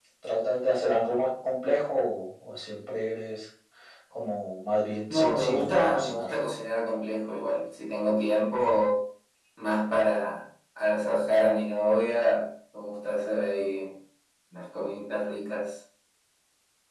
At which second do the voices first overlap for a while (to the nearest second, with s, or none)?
5 s